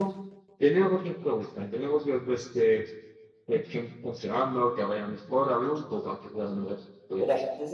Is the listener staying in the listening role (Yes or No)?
No